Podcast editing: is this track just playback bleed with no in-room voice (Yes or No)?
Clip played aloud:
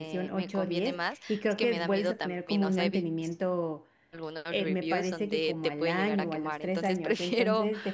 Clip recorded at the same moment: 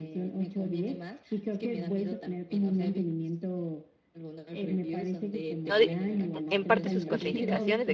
No